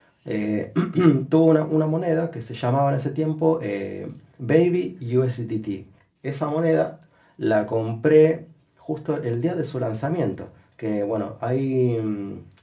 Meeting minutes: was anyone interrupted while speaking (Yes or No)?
No